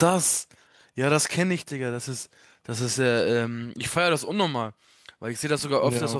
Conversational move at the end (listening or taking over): listening